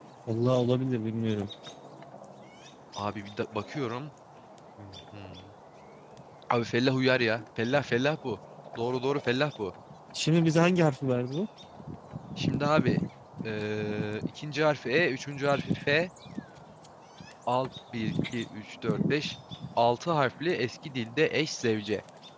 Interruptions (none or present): none